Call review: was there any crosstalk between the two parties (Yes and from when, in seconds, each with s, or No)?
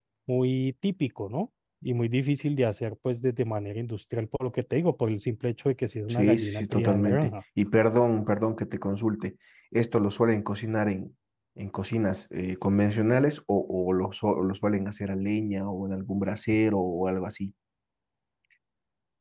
Yes, from 6.1 s